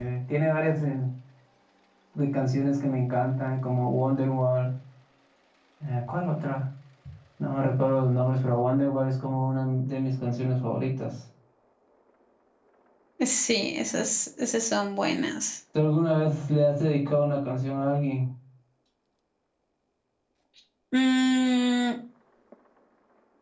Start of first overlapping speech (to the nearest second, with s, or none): none